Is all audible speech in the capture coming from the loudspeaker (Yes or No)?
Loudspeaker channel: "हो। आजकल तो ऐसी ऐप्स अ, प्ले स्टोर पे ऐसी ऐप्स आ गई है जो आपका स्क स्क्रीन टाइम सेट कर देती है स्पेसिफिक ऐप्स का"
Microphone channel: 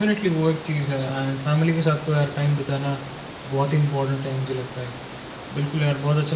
No